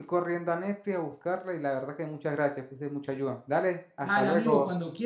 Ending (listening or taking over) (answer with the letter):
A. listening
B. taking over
B